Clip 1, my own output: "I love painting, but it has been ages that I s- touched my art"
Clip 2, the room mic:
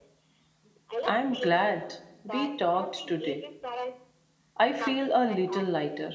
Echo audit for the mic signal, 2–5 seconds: both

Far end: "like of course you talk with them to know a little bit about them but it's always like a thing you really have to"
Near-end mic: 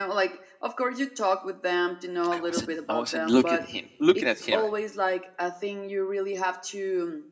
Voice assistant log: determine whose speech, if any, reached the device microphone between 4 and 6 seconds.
both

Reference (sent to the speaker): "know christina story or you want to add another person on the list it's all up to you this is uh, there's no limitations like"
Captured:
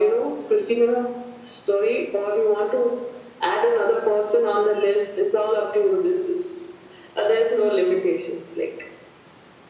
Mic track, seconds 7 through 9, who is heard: echo only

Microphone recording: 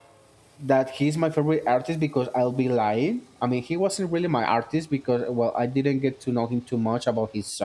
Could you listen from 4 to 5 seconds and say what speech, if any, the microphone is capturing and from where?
user only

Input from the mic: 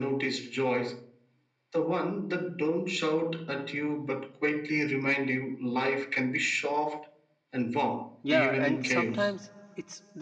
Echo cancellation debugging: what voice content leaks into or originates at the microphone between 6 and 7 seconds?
echo only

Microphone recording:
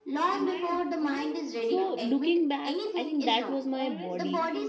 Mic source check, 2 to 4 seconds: both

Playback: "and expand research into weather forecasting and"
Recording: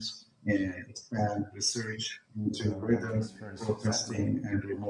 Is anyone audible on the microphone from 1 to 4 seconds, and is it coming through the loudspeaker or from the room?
both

